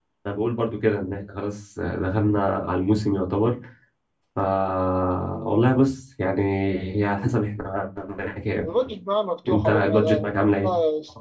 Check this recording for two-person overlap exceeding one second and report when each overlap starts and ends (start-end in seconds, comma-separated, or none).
9.5-10.7